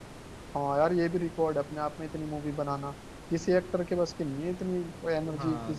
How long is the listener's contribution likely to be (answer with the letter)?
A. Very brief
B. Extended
B